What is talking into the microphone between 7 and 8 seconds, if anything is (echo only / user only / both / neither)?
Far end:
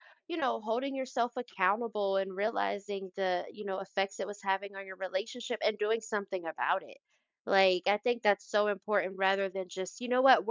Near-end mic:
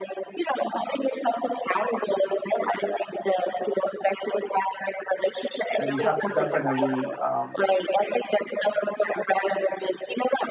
both